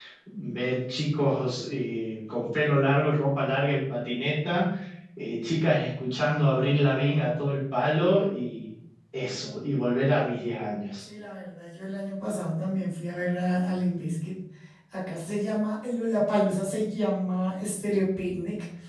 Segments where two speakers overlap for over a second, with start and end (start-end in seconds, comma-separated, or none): none